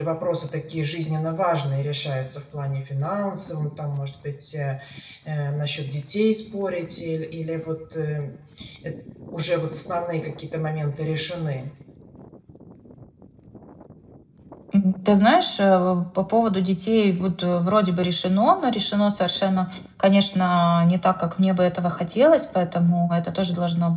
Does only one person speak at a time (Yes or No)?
Yes